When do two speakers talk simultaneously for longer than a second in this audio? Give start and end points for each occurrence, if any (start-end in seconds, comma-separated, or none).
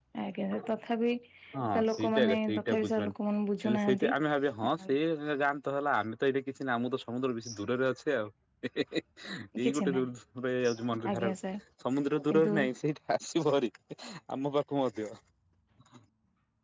1.9-3.1